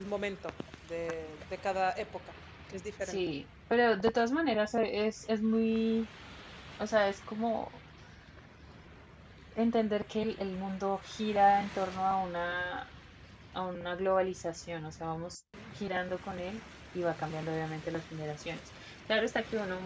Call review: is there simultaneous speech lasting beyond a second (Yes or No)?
No